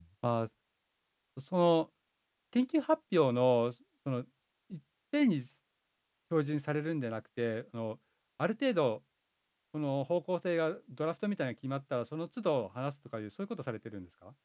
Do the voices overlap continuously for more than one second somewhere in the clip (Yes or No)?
No